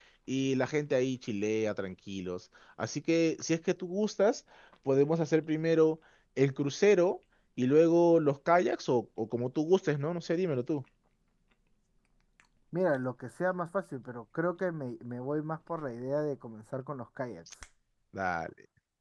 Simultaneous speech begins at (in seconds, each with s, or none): none